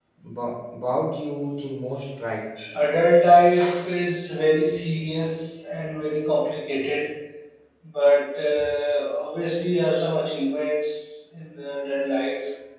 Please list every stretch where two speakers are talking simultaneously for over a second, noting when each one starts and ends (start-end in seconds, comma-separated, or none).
none